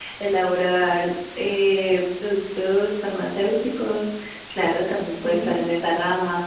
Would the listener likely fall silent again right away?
Yes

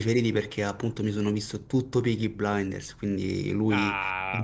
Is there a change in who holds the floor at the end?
Yes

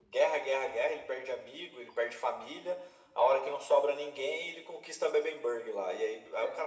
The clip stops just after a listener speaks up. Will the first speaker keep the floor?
Yes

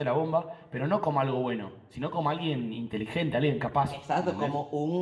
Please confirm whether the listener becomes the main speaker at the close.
Yes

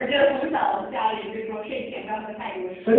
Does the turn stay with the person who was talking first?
No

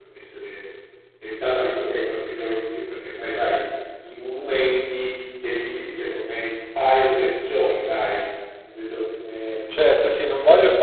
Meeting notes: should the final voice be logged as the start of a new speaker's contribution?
Yes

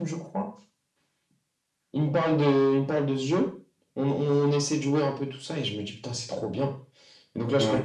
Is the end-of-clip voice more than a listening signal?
No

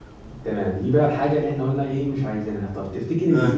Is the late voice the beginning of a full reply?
No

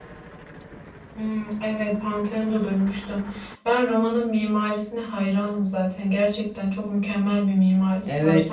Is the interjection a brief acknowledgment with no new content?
No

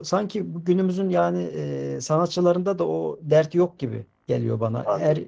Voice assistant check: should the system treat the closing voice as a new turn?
No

